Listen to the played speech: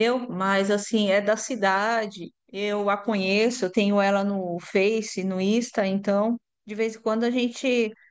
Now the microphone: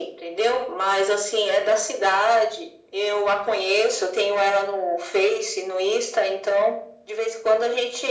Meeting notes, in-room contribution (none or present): none